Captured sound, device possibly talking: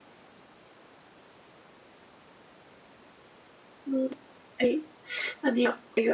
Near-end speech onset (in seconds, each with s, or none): 3.9 s